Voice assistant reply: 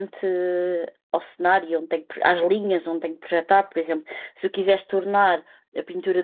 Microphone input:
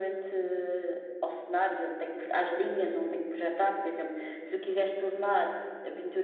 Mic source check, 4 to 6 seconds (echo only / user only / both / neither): echo only